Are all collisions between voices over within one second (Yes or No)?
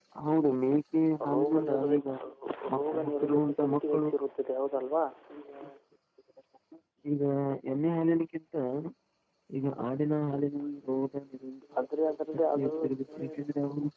No